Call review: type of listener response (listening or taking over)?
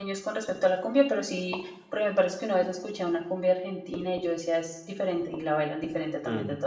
taking over